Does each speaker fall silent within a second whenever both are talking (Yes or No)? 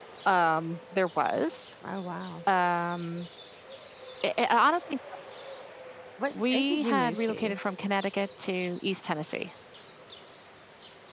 No